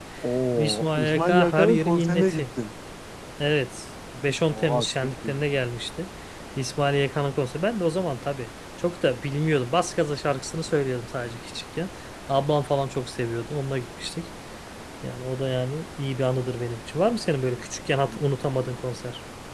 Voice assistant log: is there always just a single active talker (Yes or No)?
No